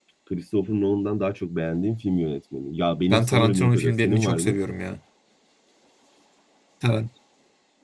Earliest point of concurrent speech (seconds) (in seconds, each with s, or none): 3.1 s